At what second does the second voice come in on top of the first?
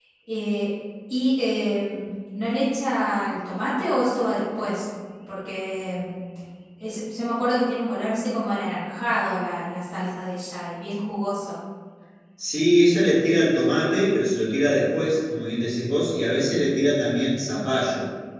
none

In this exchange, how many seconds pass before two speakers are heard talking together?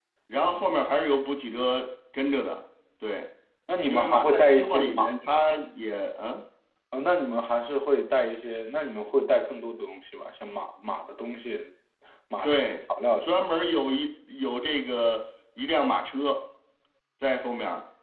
3.9 s

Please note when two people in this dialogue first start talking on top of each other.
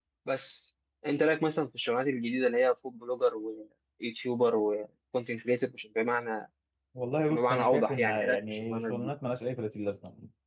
7.3 s

